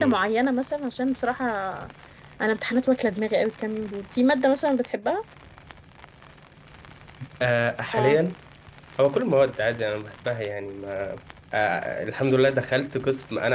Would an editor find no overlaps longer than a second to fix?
Yes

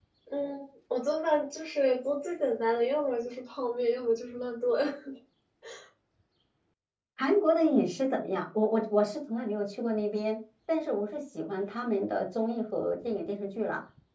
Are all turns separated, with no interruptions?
Yes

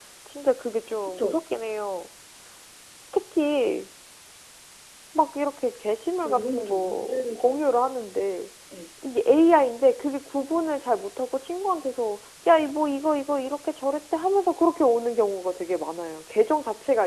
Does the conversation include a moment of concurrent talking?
Yes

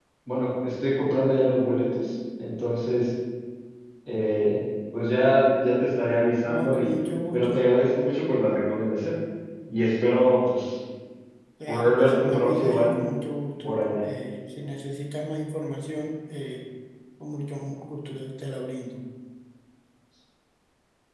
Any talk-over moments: Yes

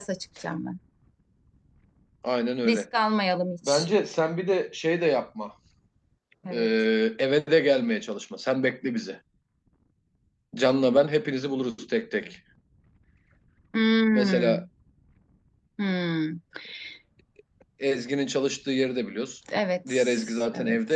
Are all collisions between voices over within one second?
Yes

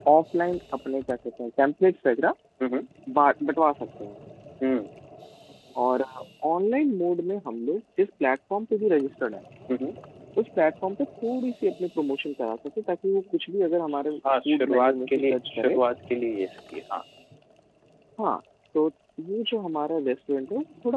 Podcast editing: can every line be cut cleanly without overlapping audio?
No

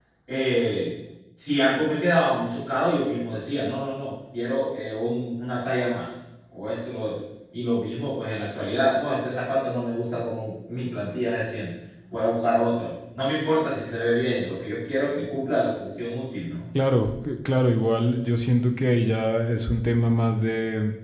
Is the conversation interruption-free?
Yes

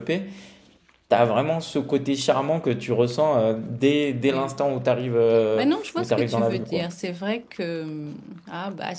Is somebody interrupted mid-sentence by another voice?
Yes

